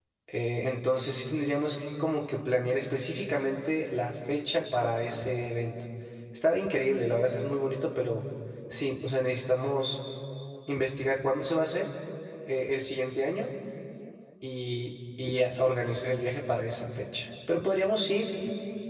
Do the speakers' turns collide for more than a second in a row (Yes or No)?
No